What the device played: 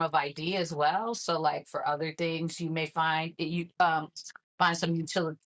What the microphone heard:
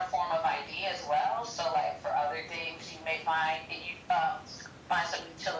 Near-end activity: none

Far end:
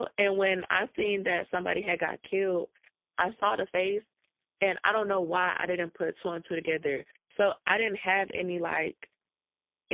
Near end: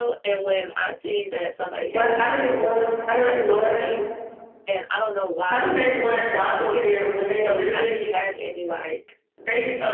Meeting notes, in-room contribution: present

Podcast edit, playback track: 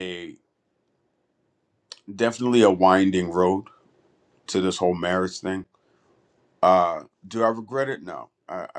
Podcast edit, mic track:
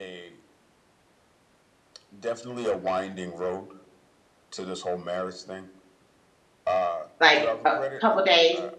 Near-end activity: present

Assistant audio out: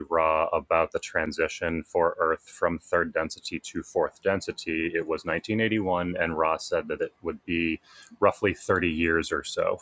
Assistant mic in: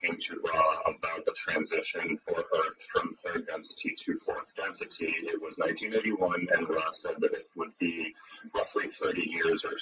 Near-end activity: none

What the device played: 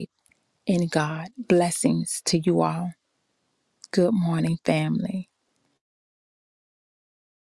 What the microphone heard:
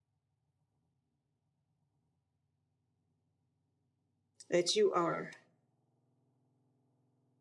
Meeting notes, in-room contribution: present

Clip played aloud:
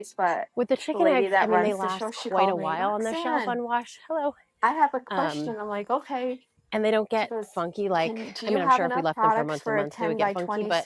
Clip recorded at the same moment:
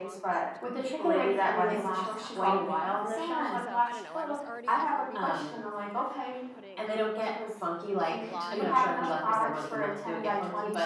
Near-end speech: present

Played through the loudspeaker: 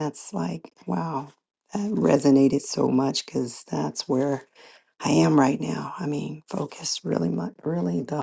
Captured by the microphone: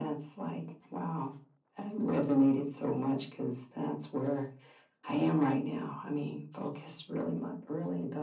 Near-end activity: none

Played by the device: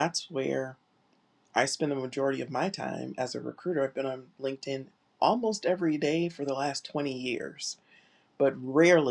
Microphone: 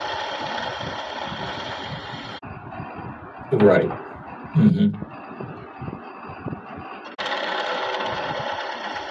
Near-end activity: present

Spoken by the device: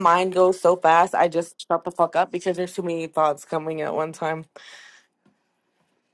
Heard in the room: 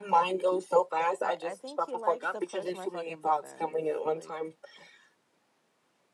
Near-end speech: present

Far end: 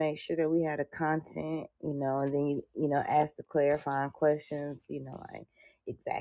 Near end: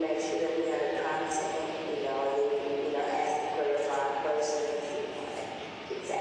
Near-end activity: none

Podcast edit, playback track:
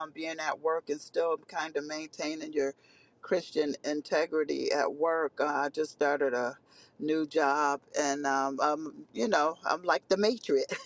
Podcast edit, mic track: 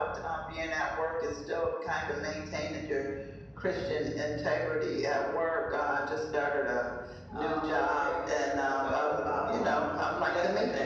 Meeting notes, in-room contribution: present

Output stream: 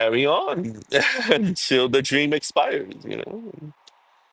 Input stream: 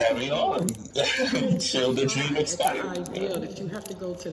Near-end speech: present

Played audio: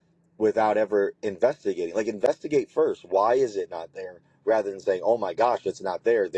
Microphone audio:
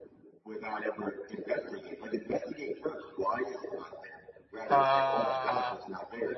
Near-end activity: present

